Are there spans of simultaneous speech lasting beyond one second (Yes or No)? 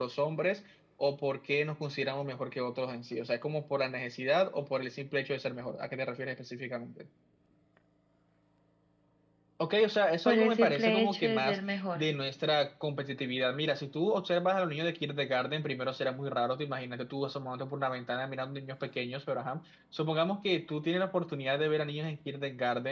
Yes